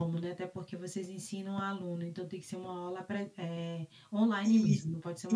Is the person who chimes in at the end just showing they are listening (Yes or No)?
No